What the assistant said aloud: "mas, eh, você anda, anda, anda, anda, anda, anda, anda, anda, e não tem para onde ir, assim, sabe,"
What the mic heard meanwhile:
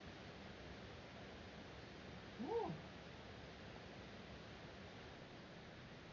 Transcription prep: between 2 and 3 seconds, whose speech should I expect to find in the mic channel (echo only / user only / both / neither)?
neither